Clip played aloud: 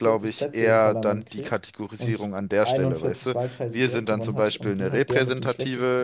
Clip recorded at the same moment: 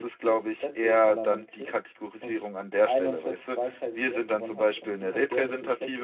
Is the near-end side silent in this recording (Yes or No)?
Yes